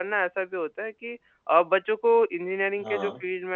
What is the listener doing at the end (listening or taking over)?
listening